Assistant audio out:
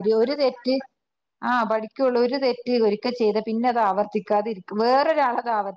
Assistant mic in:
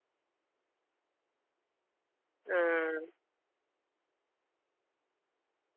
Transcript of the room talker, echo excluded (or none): ആഹ്